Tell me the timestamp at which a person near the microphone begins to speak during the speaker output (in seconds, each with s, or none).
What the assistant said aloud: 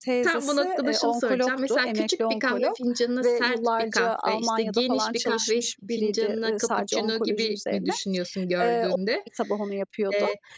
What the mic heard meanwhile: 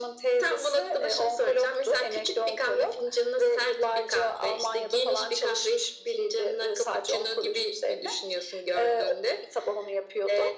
none